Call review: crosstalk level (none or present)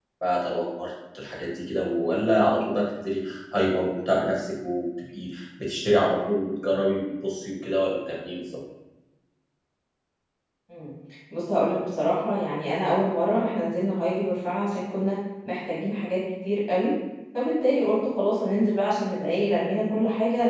none